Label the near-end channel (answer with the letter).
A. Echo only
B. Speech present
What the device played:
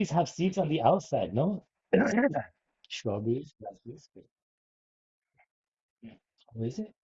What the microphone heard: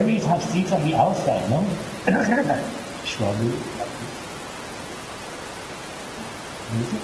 A